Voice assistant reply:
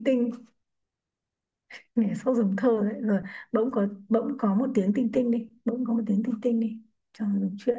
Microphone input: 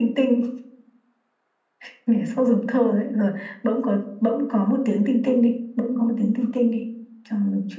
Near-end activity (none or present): none